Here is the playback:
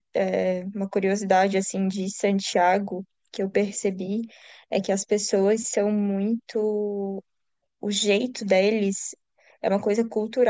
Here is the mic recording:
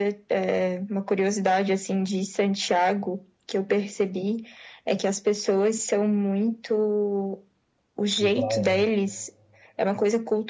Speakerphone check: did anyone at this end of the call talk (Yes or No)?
Yes